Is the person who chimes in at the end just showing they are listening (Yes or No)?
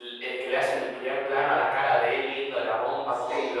No